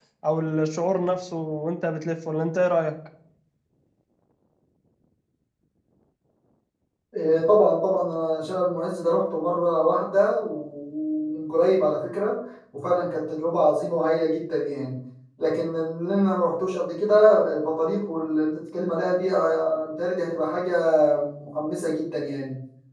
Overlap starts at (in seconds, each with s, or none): none